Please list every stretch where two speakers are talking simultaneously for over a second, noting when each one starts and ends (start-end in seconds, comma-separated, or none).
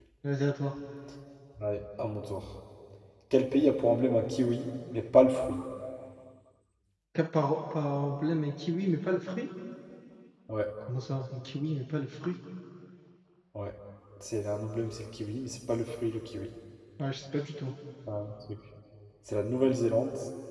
none